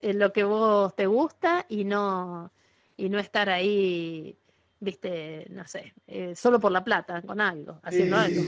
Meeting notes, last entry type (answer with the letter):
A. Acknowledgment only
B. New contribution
B